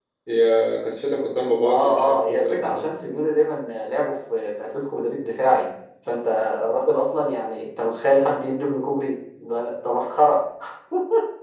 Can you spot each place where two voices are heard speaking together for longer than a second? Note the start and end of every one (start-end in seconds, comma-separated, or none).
1.6-2.8